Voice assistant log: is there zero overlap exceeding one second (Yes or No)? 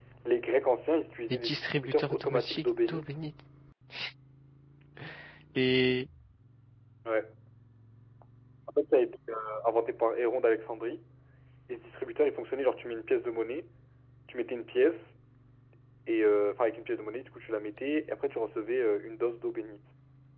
No